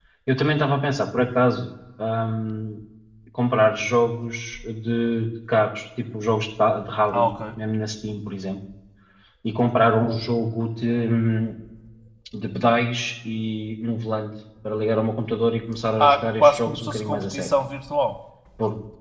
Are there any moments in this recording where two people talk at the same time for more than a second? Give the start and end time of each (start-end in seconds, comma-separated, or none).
16.0-17.5